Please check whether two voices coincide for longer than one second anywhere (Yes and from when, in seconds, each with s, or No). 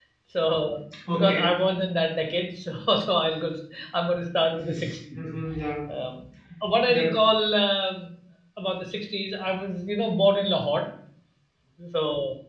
No